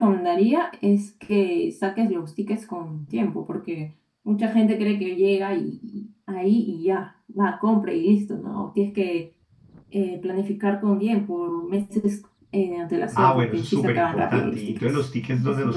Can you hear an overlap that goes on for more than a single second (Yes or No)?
Yes